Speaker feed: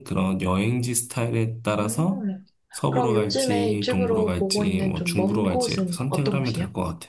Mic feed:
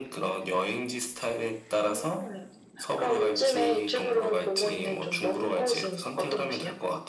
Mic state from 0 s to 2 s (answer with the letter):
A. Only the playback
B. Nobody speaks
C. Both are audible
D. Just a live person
A